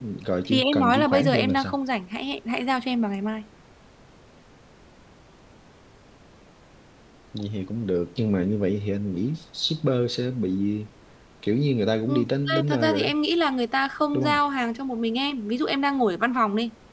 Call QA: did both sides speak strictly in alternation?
No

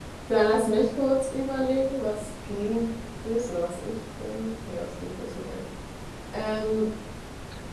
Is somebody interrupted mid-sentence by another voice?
No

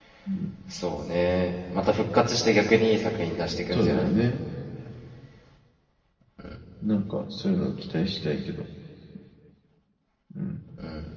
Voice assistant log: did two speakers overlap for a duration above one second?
No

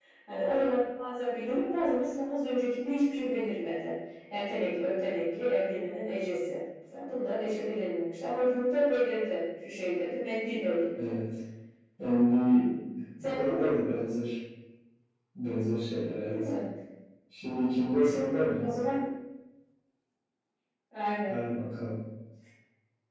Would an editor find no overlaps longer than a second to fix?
Yes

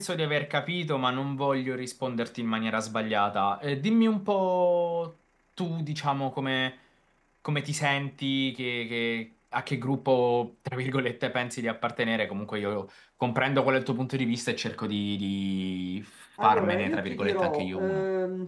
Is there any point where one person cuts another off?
Yes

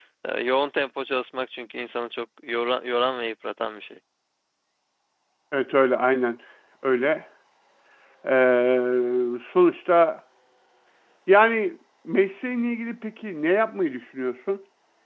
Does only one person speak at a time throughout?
Yes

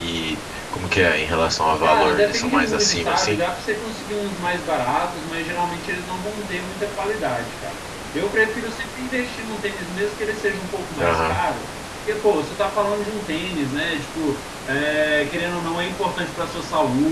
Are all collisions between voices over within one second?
No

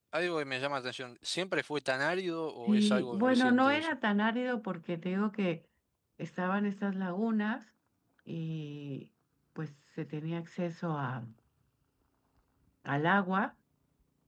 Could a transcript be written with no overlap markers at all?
No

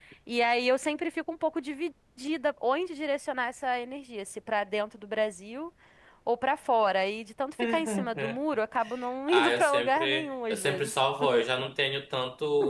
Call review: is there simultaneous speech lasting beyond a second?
Yes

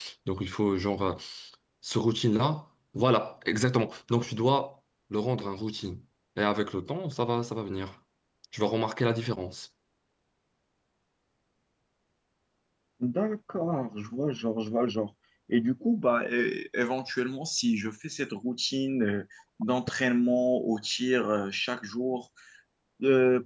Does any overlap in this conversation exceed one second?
No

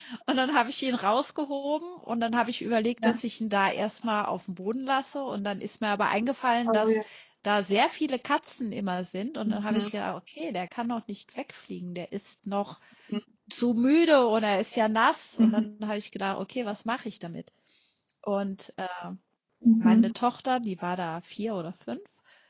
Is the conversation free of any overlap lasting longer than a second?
Yes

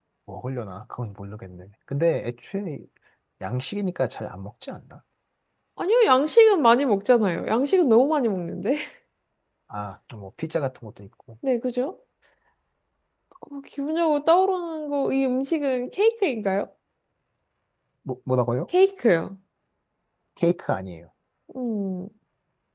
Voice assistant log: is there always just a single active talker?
Yes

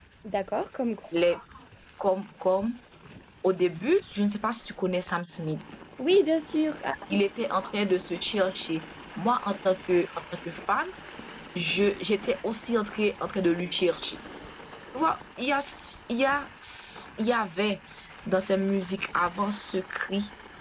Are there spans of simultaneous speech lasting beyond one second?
No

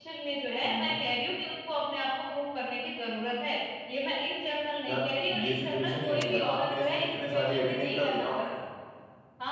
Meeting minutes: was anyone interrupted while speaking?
Yes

